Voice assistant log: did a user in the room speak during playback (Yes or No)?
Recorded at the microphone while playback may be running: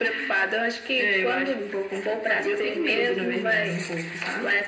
No